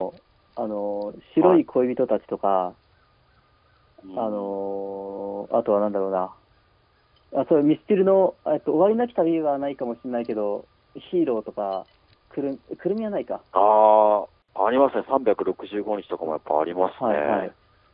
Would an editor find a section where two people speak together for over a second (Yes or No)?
No